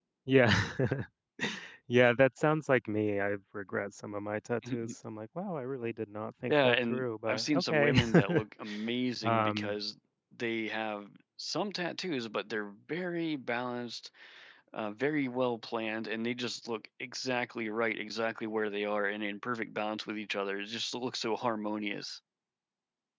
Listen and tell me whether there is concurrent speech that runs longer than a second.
Yes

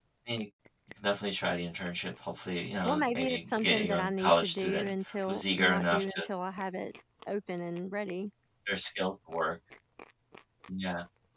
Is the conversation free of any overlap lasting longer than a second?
No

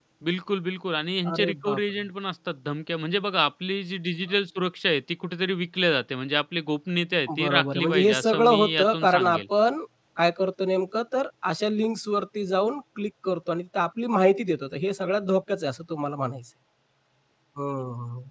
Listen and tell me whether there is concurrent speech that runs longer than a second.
Yes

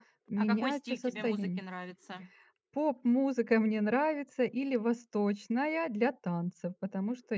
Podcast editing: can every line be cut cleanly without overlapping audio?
No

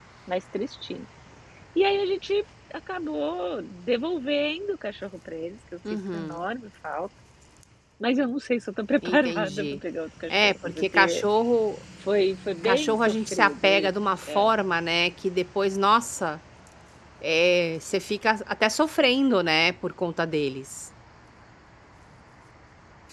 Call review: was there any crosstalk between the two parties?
Yes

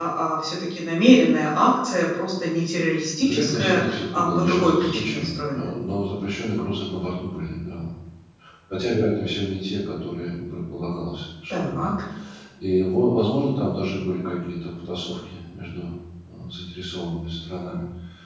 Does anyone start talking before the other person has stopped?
Yes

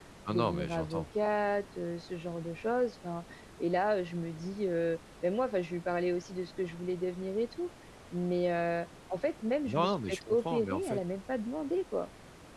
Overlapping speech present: Yes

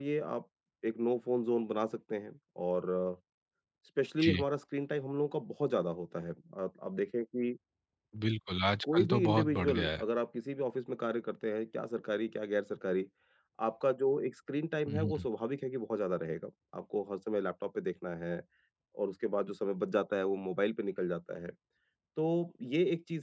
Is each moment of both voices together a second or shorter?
No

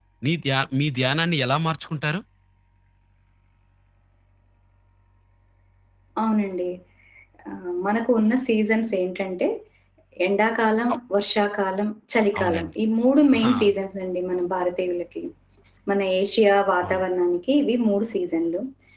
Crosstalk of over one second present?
No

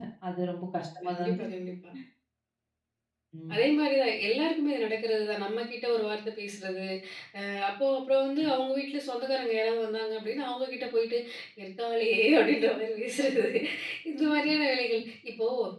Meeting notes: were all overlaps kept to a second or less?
Yes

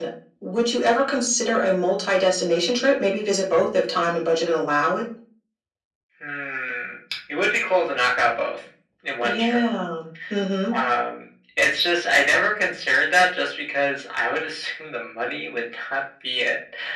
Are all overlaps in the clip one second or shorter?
Yes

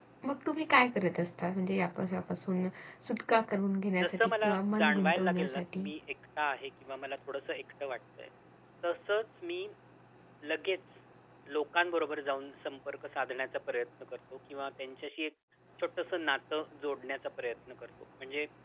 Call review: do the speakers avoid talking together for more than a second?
No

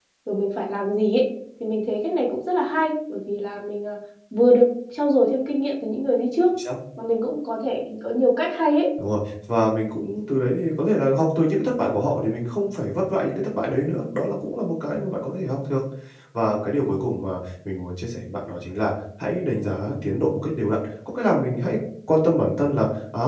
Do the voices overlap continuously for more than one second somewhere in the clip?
No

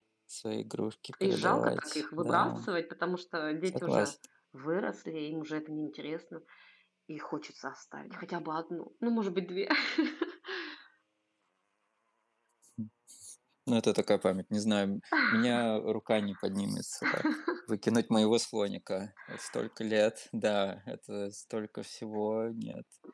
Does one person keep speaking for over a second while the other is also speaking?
Yes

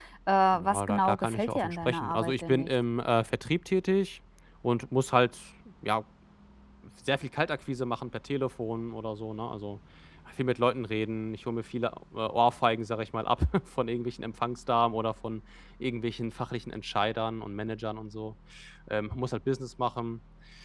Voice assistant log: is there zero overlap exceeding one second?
No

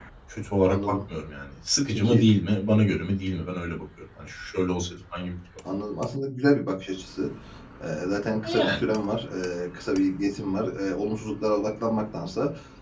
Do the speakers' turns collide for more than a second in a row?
No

